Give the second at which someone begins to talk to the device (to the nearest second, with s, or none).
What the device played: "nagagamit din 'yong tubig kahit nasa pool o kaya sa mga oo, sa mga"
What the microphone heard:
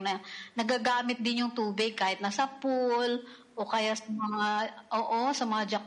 none